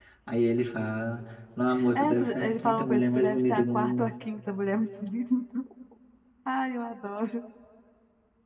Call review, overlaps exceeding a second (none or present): present